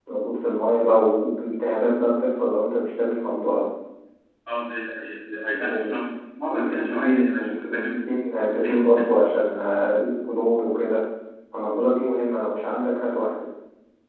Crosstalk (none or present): present